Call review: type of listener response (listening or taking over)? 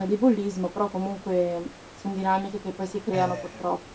taking over